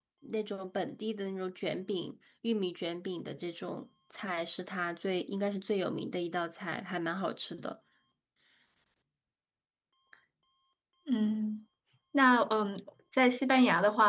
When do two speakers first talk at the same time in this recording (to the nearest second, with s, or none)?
none